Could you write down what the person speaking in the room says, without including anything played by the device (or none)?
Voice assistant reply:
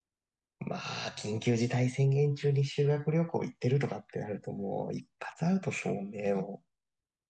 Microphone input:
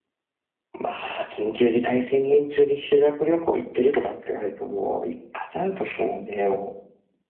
none